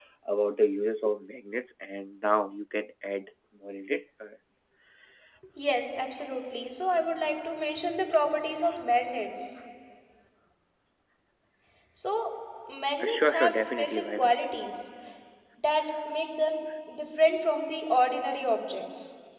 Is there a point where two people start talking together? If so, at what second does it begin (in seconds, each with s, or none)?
13.0 s